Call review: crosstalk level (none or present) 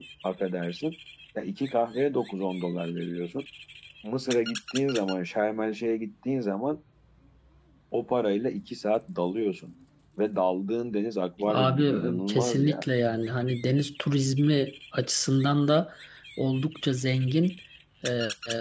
present